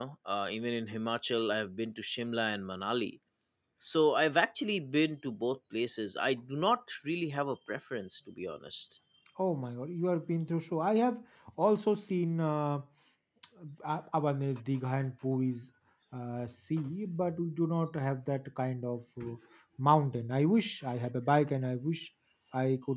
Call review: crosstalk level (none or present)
none